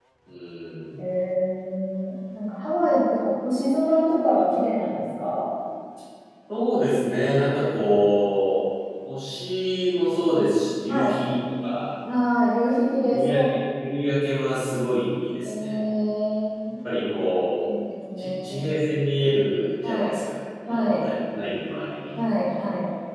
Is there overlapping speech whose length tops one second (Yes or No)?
No